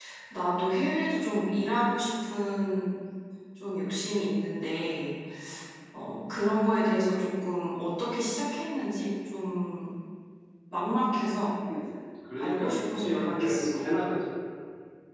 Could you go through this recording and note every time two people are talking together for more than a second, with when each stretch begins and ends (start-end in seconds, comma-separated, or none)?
12.4-13.8